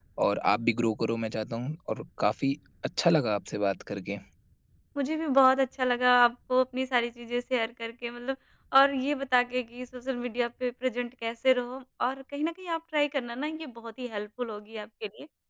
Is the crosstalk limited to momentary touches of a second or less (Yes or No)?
Yes